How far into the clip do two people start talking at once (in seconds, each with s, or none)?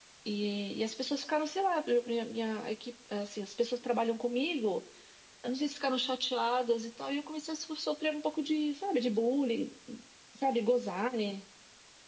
none